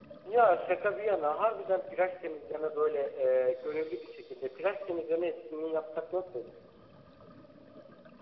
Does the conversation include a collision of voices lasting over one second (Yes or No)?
No